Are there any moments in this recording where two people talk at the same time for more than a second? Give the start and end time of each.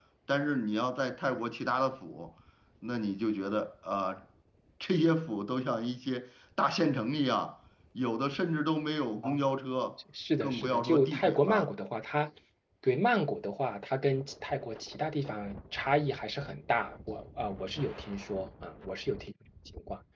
10.4-11.7

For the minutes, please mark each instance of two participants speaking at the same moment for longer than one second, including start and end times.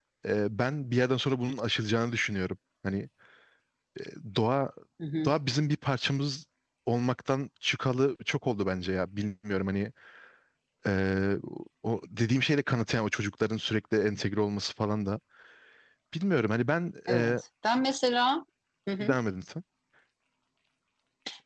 none

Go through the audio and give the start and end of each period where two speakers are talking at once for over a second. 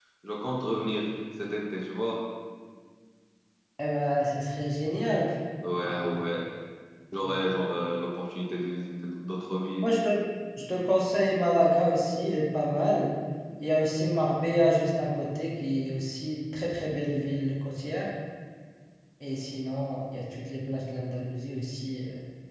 none

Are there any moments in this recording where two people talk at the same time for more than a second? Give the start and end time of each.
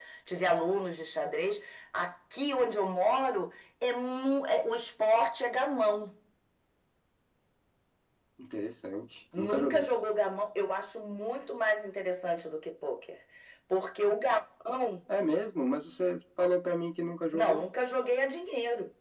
none

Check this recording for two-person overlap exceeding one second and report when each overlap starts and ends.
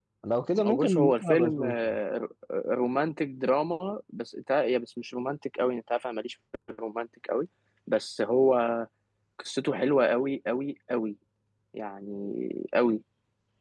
0.5-2.0

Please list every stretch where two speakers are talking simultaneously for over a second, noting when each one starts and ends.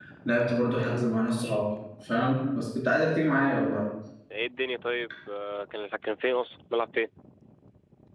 none

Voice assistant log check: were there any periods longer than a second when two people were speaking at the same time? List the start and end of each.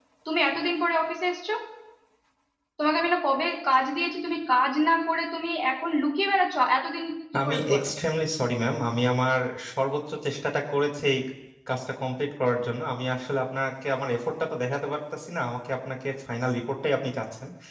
none

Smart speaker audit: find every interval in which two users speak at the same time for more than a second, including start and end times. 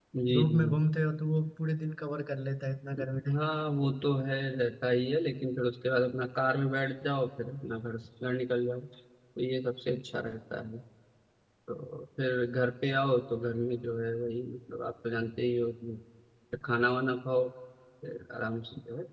none

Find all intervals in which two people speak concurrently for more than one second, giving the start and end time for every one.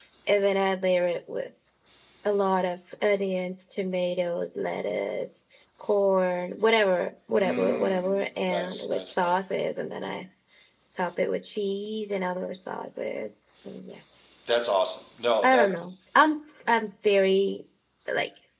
7.3-9.4

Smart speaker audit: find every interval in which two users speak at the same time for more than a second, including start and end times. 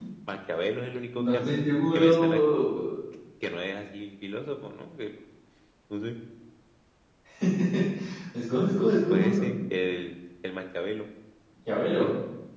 none

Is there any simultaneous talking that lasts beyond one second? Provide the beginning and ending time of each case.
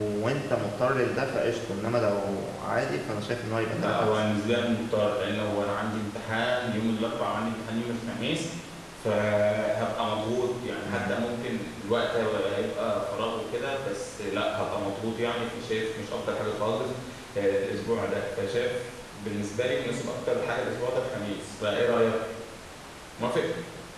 none

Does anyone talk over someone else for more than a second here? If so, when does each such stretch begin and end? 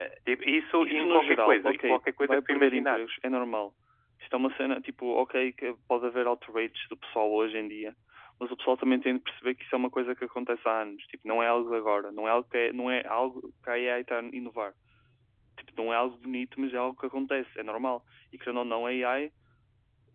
0.8-3.0

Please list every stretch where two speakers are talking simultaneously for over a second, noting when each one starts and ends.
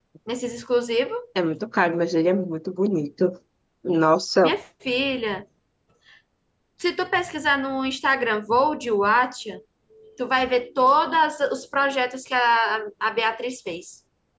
none

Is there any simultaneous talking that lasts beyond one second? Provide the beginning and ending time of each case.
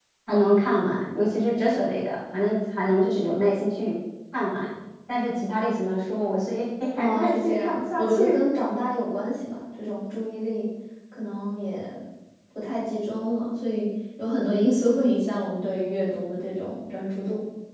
7.0-8.3

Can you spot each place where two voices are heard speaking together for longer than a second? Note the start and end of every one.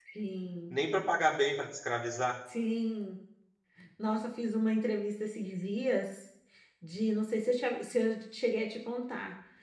none

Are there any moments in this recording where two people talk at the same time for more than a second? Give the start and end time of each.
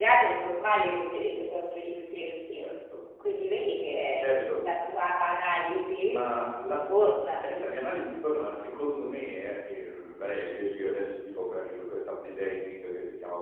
none

